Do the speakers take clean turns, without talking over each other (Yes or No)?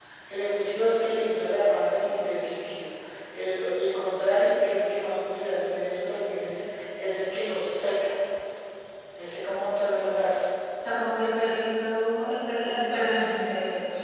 Yes